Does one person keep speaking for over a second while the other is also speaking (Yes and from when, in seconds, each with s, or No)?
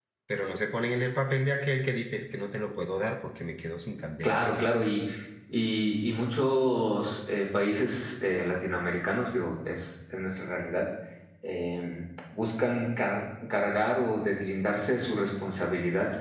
No